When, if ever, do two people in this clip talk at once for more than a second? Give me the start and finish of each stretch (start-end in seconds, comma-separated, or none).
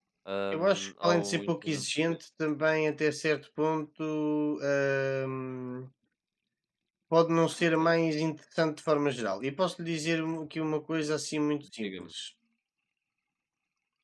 0.5-2.2